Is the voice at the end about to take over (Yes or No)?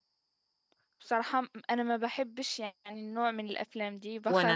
Yes